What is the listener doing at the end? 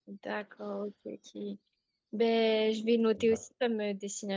listening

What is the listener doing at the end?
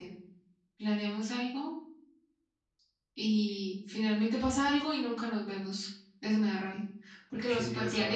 taking over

